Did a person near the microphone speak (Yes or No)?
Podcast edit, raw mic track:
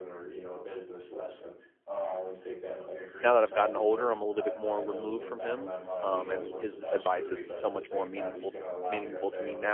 Yes